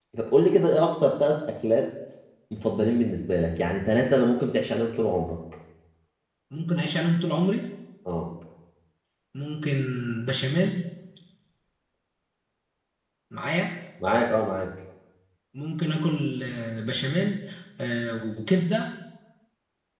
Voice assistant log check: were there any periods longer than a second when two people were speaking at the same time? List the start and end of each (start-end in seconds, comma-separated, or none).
none